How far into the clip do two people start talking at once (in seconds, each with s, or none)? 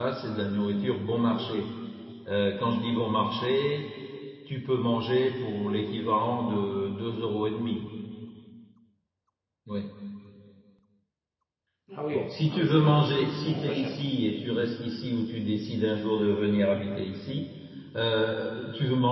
12.1 s